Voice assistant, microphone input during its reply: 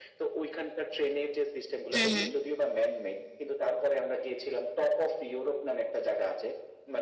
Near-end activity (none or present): present